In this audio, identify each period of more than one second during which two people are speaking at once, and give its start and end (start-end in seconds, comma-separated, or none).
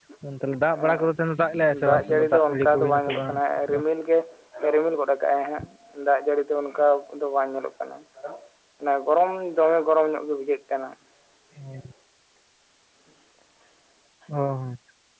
1.9-3.3